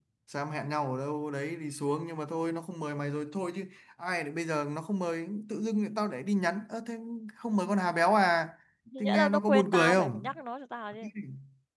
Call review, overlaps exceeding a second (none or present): present